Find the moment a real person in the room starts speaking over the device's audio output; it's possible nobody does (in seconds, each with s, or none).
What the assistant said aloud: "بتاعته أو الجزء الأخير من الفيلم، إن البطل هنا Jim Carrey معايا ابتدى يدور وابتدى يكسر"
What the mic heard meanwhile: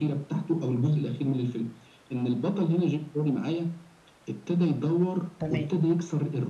5.4 s